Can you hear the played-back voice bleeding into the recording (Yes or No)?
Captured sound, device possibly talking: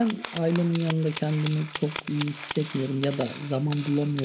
No